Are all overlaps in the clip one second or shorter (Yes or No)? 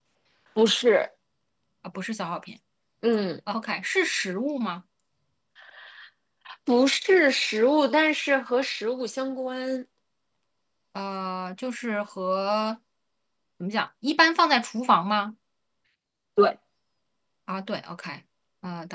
Yes